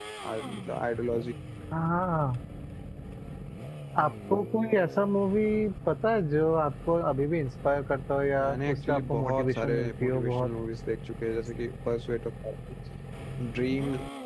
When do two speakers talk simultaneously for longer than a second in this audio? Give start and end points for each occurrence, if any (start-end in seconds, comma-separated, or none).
8.4-10.5